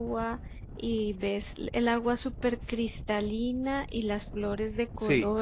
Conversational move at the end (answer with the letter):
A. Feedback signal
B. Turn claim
A